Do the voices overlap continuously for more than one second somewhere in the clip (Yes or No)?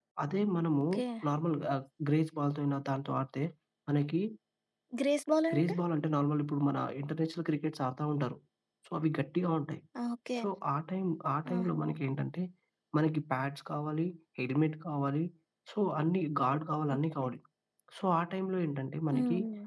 No